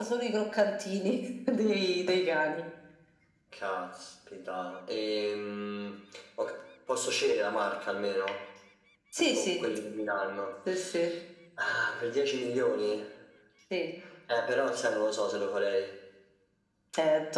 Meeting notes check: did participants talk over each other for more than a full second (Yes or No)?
No